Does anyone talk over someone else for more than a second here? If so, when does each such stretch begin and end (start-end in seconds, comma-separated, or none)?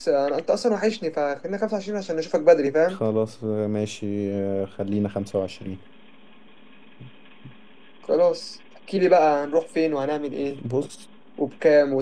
none